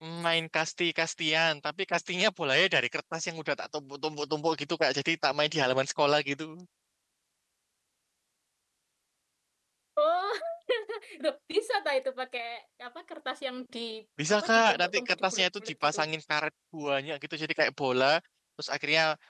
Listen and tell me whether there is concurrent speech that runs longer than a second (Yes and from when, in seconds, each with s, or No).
Yes, from 14.3 s